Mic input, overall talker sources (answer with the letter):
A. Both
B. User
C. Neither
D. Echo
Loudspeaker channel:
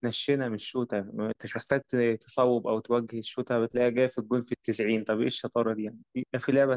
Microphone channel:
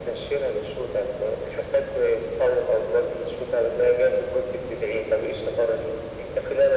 D